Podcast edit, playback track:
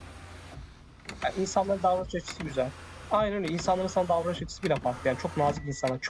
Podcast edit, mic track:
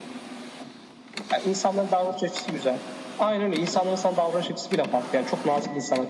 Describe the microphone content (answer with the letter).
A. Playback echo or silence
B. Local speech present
A